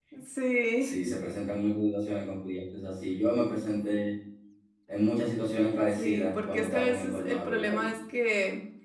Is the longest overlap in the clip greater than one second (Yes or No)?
Yes